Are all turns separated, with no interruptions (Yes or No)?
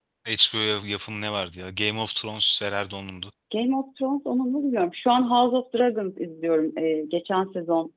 Yes